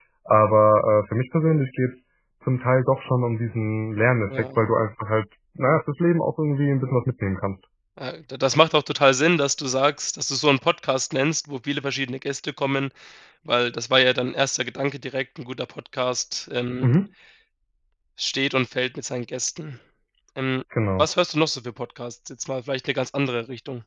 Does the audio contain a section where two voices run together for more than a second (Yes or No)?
No